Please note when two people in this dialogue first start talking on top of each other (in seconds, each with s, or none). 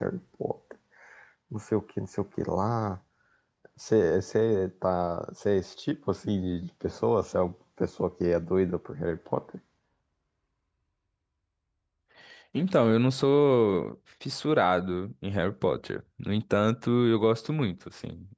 none